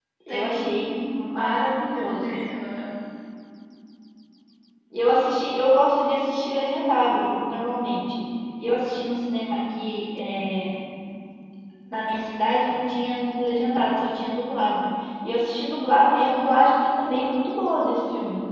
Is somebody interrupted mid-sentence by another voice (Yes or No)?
Yes